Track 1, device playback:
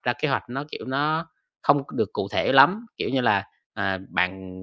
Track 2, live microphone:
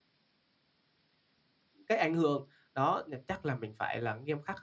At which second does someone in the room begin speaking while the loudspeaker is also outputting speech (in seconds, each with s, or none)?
1.9 s